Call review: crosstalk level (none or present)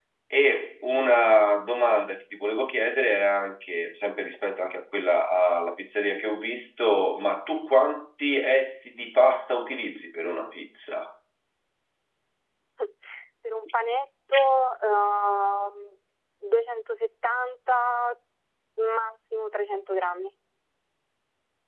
none